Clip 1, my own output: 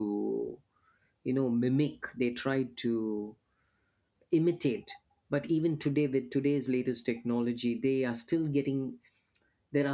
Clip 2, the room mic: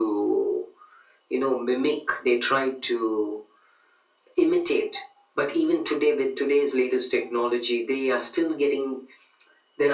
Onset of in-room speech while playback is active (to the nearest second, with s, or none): none